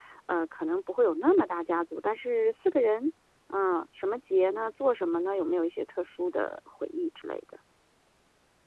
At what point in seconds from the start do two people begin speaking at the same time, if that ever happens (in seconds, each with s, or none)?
none